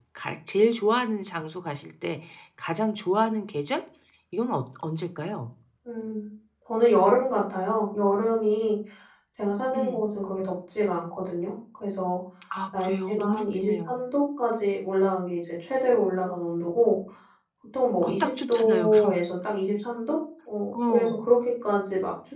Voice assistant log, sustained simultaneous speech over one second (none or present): present